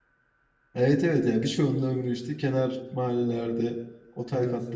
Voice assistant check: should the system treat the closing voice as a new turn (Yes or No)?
No